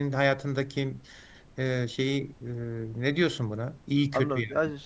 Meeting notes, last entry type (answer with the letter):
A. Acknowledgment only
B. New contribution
B